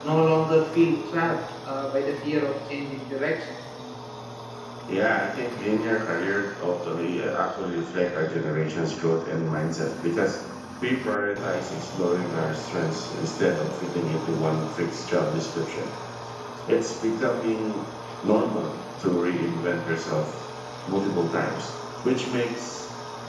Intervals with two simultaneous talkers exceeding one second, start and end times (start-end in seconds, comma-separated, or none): none